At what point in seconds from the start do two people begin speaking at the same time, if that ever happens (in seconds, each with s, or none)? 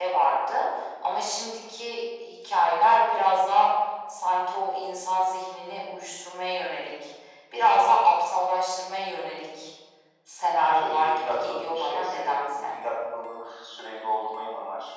10.6 s